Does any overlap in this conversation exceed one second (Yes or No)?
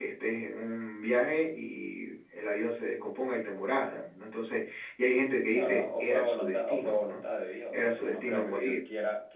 Yes